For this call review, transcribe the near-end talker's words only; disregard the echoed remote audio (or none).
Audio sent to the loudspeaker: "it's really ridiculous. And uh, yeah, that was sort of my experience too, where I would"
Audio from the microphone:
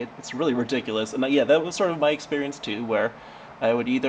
none